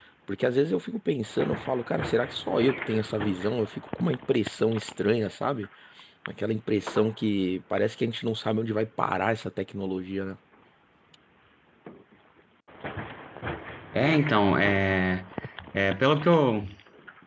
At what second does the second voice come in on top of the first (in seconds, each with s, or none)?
none